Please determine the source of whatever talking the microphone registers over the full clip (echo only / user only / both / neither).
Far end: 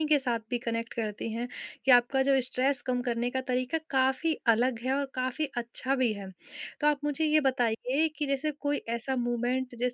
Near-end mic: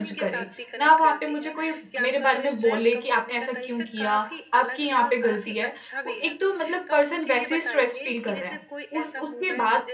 both